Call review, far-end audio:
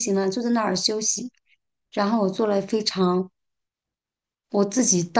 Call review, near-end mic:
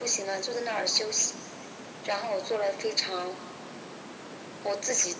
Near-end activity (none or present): none